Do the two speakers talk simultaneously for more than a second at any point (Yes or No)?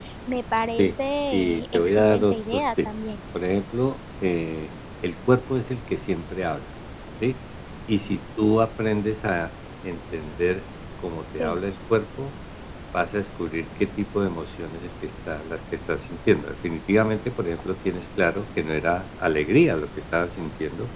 Yes